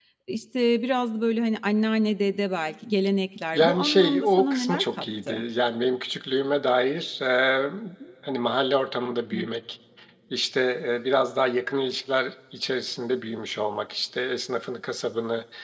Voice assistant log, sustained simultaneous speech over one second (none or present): present